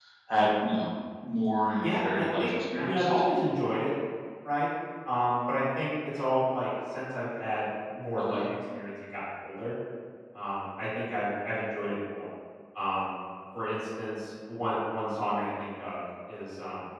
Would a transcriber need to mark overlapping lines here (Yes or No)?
Yes